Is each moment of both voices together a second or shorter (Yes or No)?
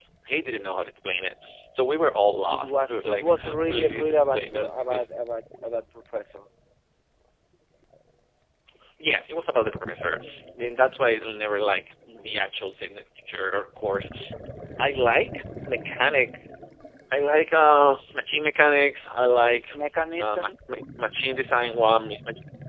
No